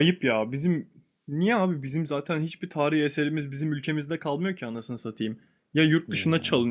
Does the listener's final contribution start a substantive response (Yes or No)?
No